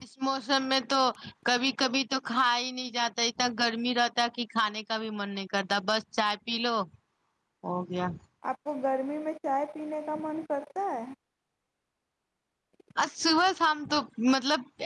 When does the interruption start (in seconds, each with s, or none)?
none